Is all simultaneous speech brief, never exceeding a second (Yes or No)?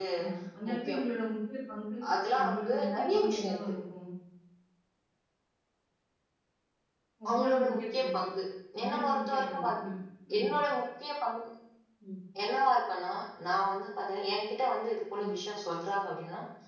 No